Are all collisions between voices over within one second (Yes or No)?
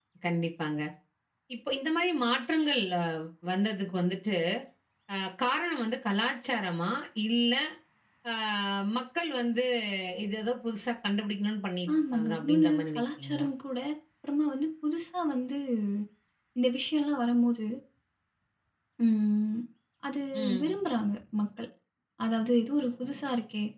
No